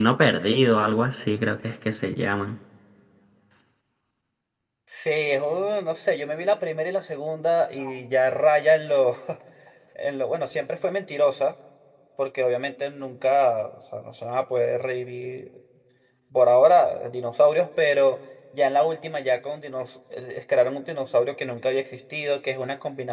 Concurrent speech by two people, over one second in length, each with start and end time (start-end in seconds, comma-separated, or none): none